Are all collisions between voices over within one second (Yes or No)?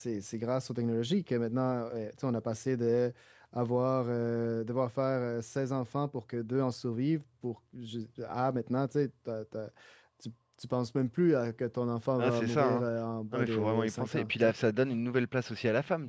No